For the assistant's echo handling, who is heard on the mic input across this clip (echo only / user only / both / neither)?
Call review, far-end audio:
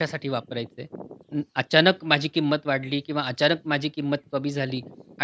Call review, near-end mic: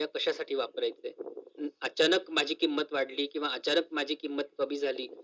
echo only